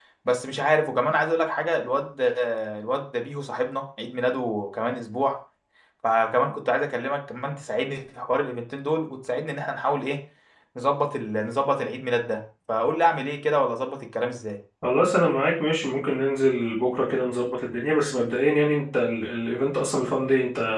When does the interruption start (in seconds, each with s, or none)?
none